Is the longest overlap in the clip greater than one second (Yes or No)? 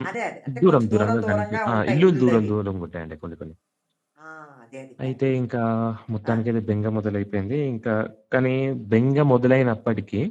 Yes